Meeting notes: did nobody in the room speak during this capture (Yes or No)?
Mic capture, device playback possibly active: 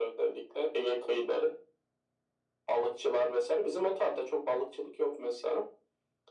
Yes